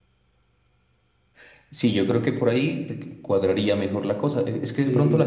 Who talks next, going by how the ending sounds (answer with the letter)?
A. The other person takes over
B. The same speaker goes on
B